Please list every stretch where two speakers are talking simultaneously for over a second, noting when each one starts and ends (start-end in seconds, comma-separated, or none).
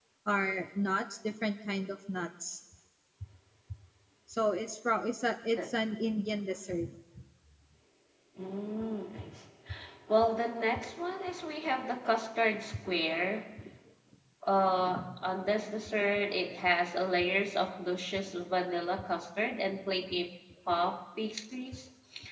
none